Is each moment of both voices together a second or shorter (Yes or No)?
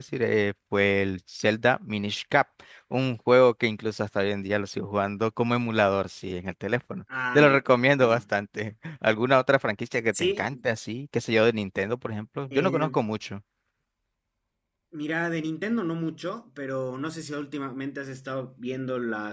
Yes